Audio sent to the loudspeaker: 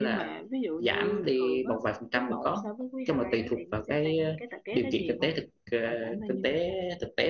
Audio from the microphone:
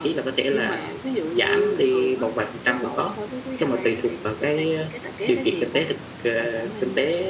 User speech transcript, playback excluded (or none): none